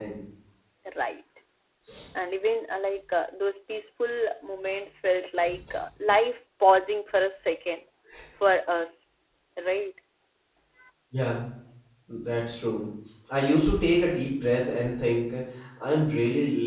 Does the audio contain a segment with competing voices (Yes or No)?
No